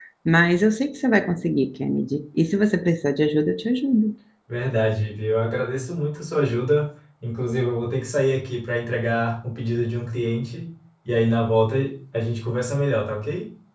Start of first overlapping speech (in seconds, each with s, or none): none